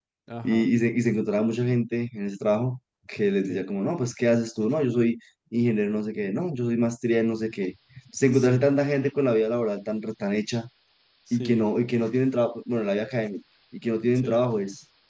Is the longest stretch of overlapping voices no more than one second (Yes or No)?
Yes